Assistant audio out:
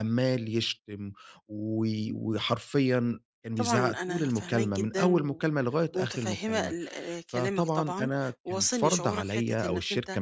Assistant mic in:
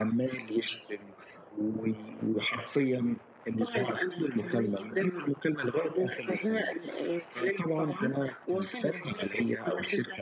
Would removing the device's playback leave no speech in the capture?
Yes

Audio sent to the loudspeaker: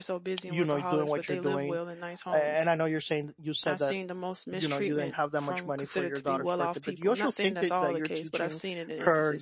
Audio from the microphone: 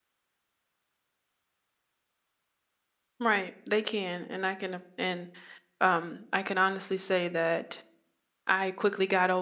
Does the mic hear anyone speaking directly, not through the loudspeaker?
Yes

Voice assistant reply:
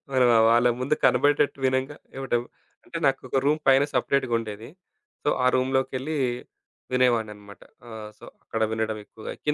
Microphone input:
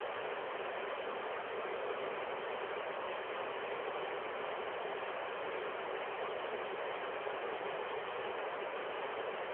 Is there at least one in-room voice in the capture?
No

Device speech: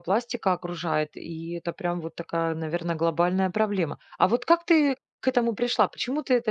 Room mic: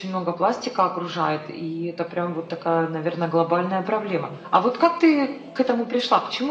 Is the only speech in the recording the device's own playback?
Yes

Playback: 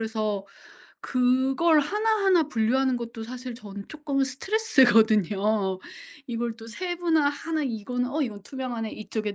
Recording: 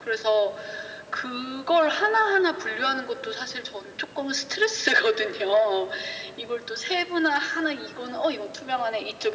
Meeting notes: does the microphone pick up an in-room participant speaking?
No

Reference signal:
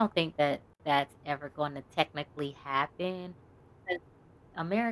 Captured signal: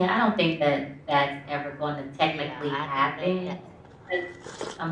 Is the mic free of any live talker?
No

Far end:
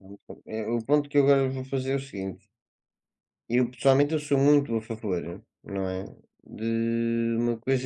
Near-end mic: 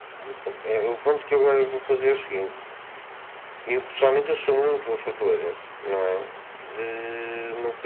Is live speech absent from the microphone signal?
Yes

